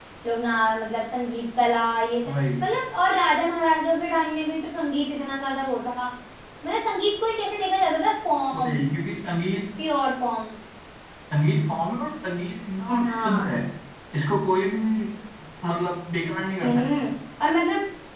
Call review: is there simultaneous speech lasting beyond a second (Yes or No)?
No